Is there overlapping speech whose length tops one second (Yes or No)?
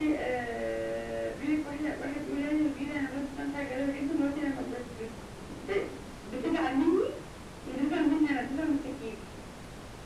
No